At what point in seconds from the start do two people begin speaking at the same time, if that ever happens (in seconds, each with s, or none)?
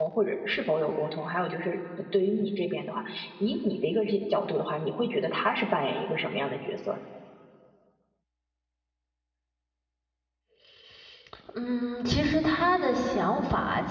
none